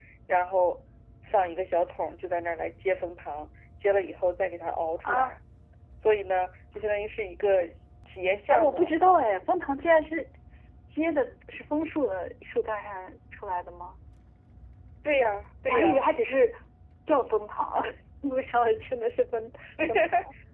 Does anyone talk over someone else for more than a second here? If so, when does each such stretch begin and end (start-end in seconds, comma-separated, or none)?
none